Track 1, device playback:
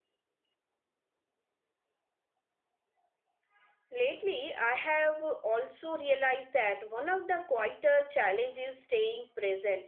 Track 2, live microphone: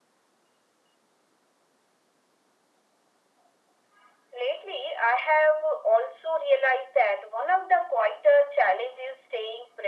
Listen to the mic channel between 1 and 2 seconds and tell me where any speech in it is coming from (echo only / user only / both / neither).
neither